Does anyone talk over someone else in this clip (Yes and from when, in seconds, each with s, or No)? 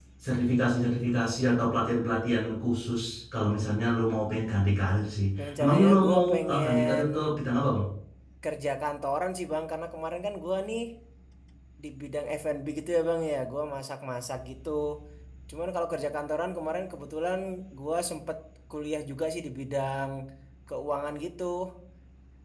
Yes, from 5.4 s